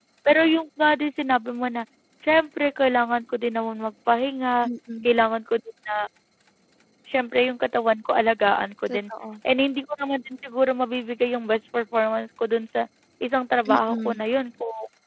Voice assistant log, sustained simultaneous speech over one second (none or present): none